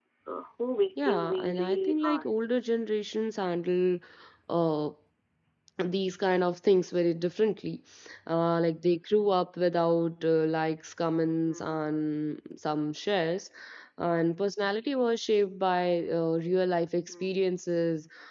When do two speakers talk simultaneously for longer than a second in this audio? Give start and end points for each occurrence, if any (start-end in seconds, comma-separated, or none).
1.0-2.3